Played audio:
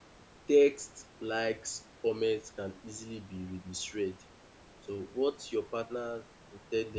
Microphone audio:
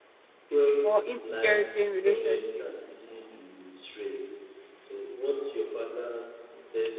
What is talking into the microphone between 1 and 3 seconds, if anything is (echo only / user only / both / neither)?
both